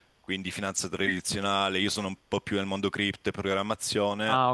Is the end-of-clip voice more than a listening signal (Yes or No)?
No